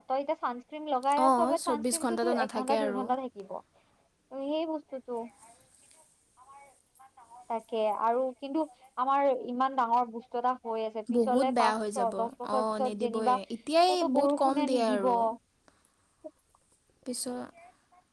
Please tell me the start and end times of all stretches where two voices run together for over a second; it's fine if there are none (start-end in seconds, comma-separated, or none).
1.3-3.1, 11.3-13.4, 13.9-15.2